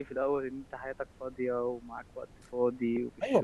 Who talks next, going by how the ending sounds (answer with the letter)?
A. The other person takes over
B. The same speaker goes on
A